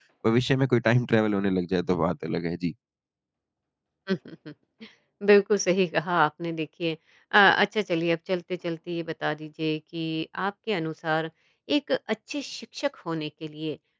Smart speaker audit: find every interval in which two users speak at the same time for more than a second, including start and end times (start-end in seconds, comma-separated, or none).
none